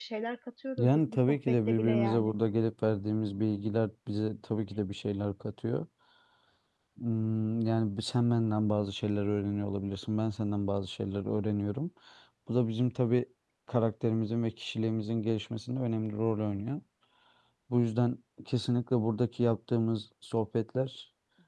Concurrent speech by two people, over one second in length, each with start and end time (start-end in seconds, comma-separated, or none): 0.8-2.3